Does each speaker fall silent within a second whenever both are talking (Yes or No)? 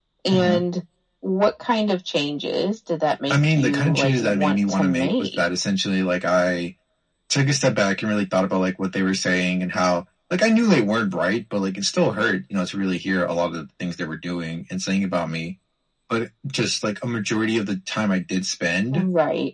No